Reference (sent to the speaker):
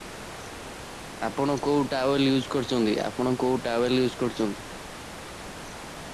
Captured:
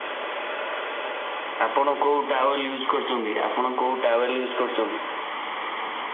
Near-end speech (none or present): none